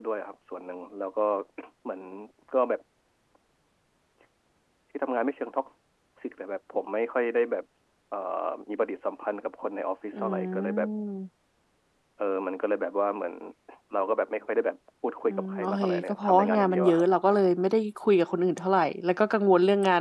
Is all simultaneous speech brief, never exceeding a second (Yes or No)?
No